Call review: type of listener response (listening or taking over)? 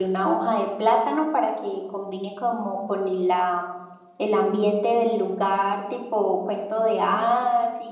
taking over